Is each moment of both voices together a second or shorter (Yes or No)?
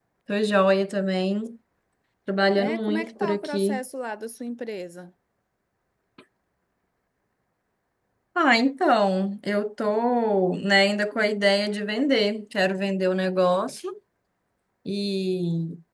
No